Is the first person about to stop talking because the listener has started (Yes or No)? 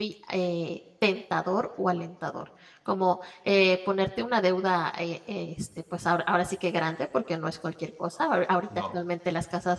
No